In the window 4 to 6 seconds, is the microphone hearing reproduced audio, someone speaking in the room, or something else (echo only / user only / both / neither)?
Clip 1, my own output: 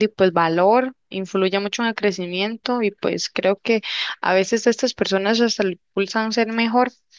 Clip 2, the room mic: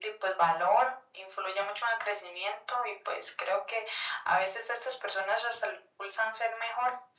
echo only